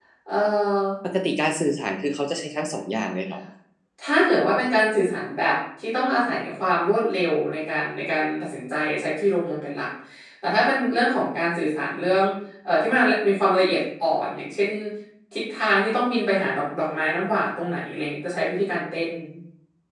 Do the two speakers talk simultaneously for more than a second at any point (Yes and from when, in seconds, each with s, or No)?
No